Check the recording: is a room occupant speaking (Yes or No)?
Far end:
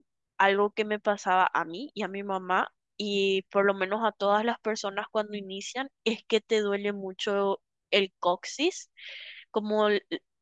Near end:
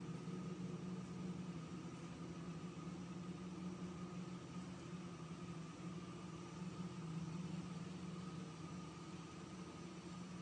No